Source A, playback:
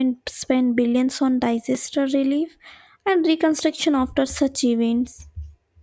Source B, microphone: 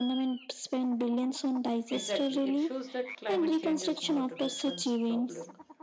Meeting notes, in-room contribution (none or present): present